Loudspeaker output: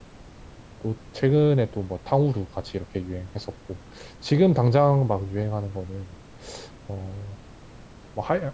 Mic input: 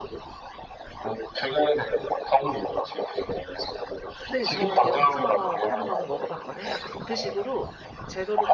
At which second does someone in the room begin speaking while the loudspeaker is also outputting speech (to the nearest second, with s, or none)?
4 s